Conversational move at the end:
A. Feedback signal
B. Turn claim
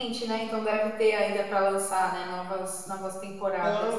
B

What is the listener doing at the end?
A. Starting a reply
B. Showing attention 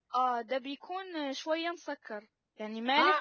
A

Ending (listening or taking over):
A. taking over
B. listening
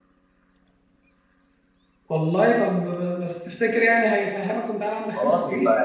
A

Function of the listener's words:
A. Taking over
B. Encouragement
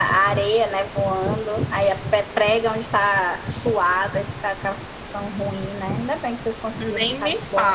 A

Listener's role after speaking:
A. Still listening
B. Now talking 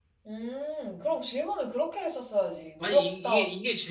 B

